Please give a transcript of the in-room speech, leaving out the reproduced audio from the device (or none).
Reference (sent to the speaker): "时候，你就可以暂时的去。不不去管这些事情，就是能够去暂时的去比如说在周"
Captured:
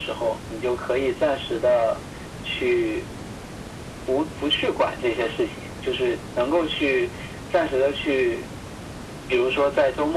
none